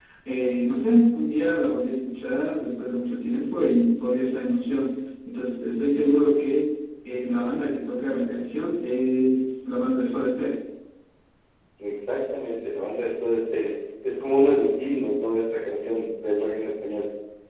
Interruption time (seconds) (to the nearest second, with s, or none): none